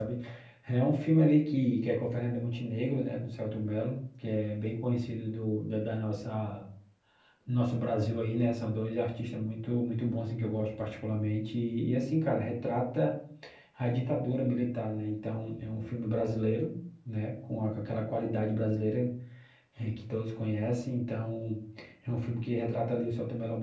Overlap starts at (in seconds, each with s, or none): none